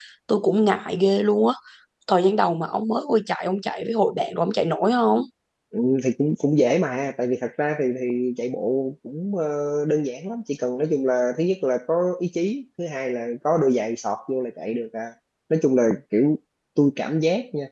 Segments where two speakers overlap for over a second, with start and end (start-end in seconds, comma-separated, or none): none